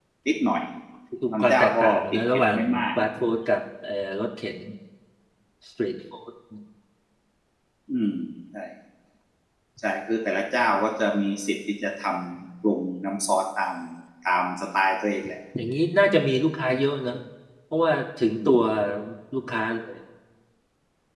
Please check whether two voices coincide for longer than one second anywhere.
Yes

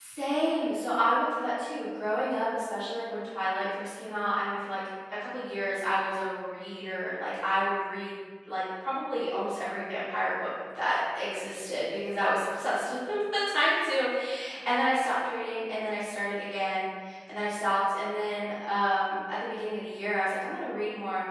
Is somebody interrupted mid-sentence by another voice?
No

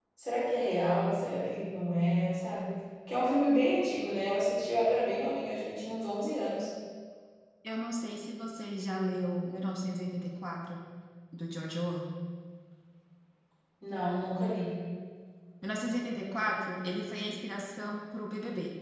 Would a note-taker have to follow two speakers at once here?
No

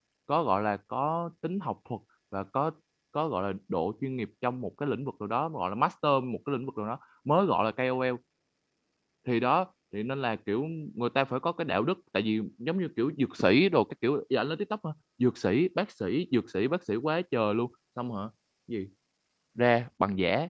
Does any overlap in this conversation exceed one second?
No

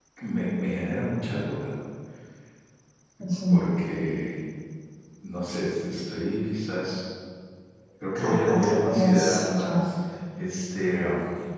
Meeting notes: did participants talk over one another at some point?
Yes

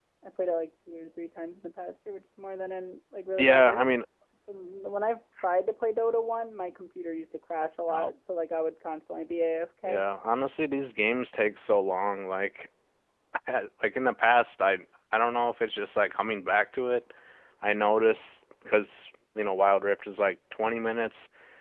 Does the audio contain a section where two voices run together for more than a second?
No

